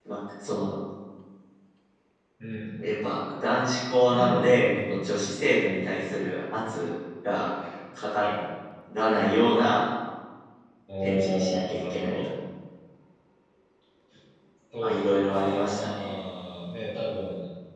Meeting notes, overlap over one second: present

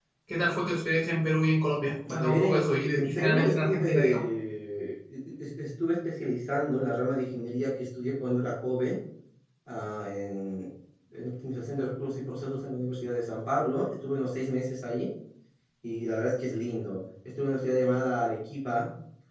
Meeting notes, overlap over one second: present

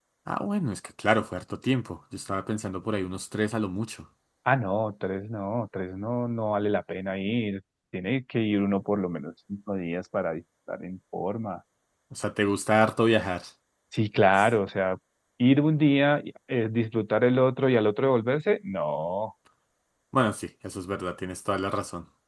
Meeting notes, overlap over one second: none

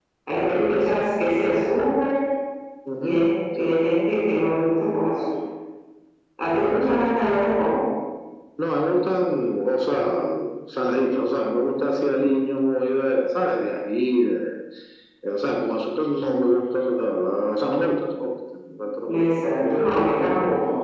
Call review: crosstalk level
present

